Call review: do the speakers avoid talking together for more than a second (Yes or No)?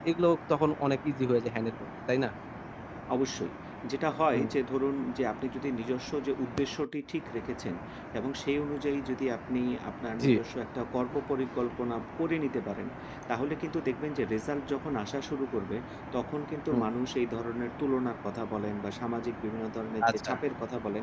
Yes